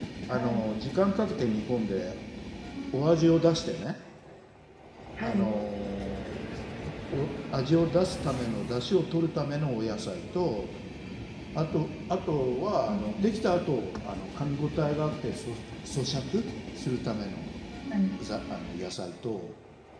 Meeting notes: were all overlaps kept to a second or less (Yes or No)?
Yes